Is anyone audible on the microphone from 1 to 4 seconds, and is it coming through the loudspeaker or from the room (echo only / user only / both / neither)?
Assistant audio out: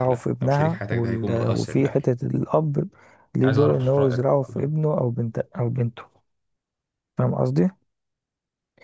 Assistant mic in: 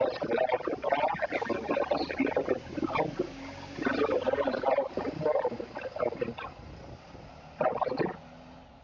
echo only